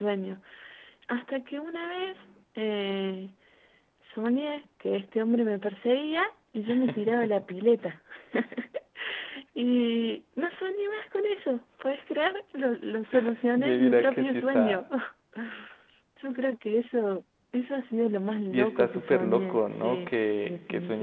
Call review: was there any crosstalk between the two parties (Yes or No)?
Yes